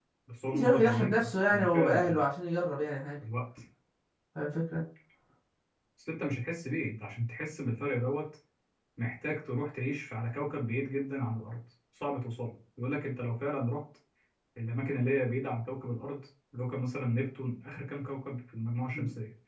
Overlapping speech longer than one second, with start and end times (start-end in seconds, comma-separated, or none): 0.5-2.2